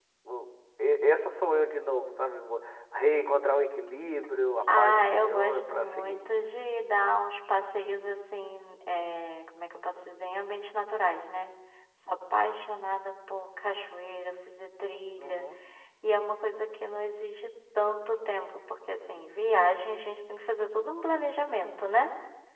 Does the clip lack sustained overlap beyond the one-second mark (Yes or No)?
No